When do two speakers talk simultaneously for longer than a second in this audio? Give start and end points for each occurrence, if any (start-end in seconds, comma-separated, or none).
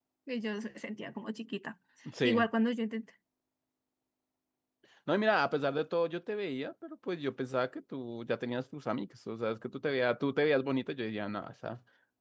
none